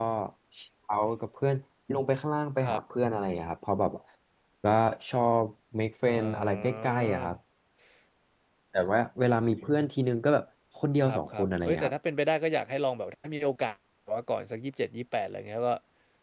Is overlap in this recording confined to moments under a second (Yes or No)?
No